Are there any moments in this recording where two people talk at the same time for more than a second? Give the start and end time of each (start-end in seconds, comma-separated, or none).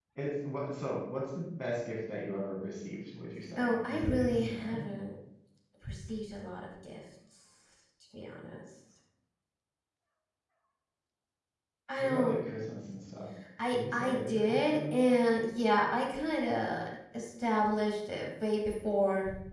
3.6-4.8, 13.7-15.1